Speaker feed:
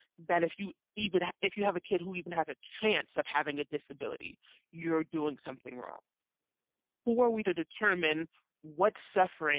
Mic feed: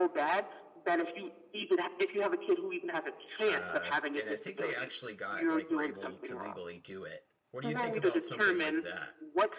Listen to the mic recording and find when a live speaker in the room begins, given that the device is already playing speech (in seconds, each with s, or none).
3.5 s